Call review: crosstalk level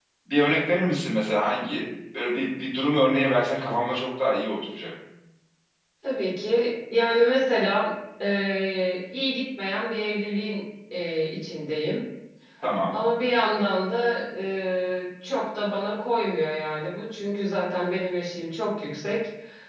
none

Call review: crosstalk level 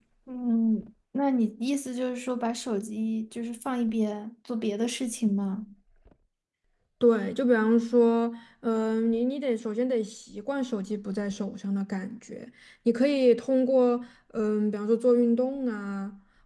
none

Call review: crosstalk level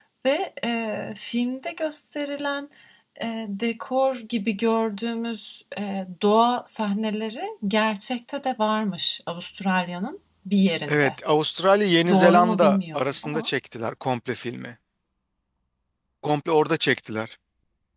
present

